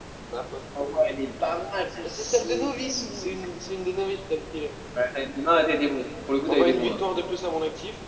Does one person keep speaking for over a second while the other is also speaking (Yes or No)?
Yes